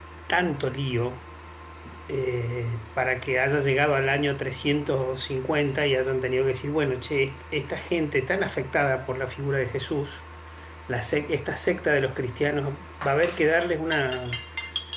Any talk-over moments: No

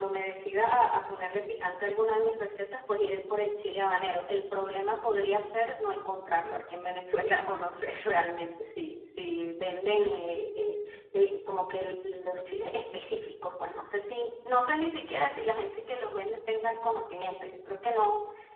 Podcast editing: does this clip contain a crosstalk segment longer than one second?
No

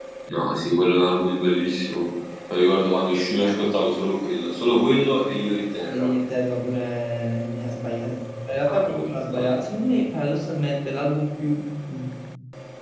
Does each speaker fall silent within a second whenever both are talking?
Yes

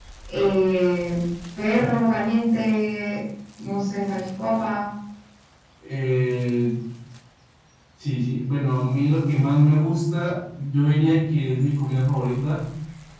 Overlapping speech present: No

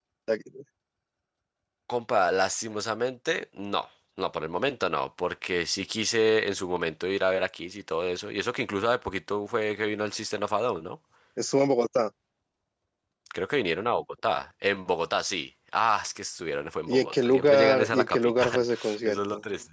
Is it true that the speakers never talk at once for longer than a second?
No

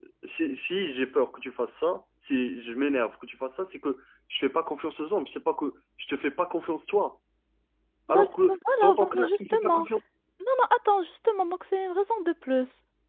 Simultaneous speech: Yes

